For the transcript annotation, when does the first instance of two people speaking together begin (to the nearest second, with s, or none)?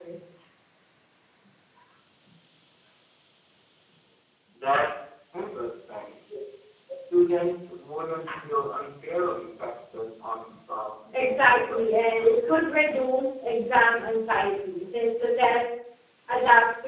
11 s